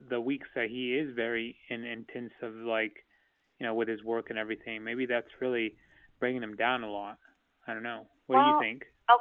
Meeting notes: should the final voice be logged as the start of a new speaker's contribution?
Yes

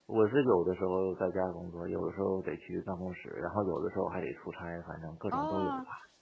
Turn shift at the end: Yes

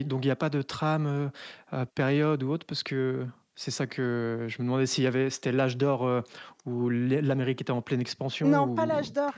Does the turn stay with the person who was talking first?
No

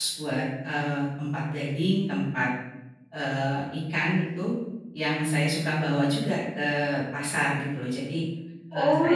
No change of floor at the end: No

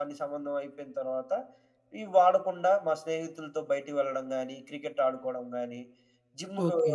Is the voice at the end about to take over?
No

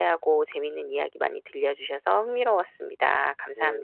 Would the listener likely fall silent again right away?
No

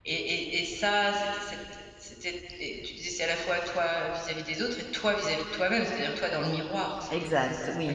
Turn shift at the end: Yes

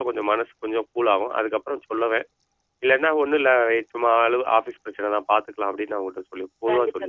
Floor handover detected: Yes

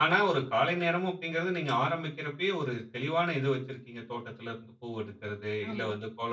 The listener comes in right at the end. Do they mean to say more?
No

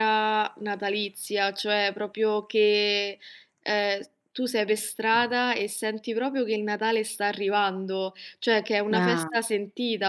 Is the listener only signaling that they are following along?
Yes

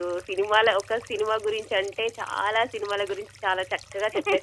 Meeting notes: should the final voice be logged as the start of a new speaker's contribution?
No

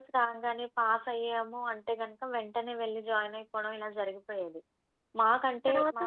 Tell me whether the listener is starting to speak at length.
No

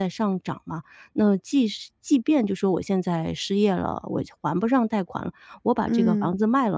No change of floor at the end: Yes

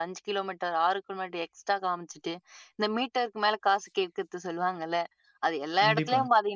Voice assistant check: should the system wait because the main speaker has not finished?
Yes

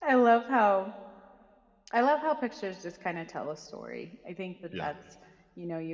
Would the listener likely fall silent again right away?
Yes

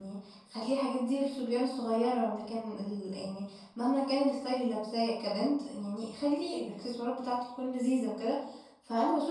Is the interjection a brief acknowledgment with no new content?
Yes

